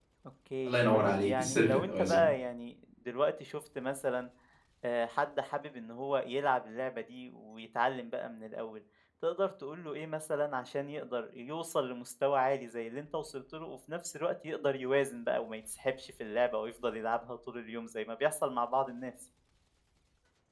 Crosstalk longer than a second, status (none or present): present